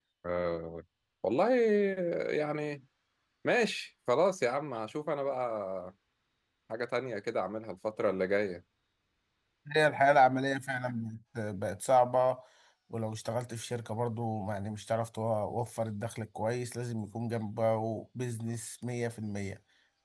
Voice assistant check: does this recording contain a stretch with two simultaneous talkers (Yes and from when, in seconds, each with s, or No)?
No